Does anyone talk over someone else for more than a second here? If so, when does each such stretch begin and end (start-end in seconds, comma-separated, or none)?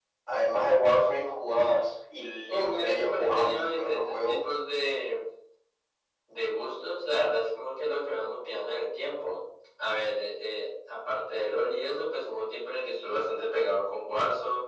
2.5-4.4